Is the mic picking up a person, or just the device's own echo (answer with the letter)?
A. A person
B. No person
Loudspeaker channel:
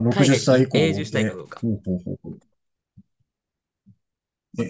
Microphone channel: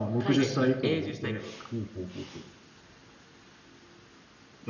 B